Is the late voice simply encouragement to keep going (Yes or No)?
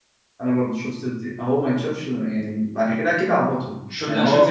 No